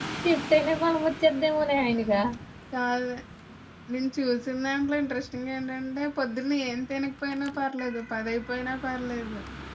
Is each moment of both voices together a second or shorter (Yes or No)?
Yes